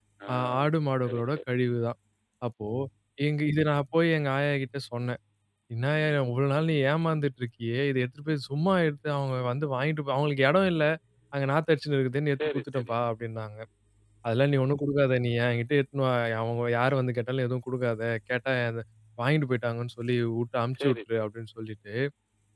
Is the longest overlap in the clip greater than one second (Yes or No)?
No